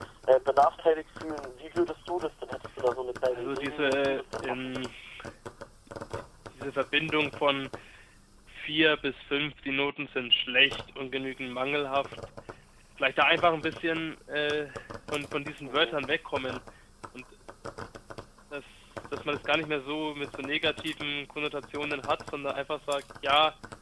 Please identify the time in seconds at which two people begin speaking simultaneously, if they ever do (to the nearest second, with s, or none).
3 s